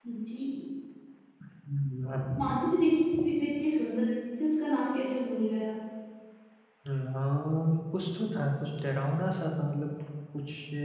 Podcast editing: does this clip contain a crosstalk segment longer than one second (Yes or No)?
No